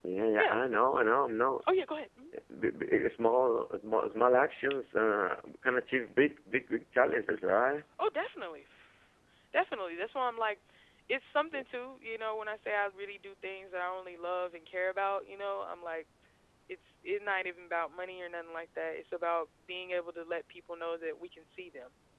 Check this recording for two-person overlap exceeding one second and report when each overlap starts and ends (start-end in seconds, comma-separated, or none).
none